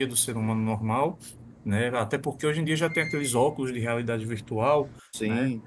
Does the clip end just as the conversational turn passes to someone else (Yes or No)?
No